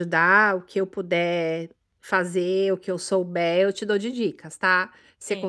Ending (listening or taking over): listening